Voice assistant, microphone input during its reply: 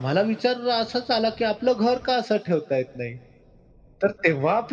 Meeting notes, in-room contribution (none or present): none